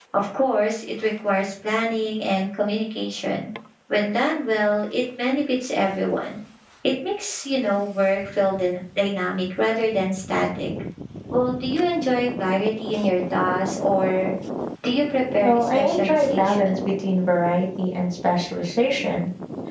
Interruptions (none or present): present